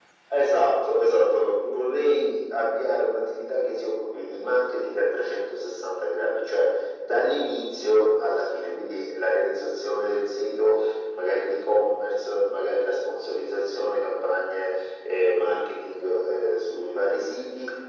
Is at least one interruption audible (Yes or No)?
No